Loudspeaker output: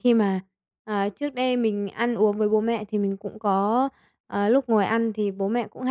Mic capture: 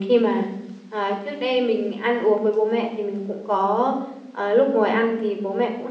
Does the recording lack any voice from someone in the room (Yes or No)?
Yes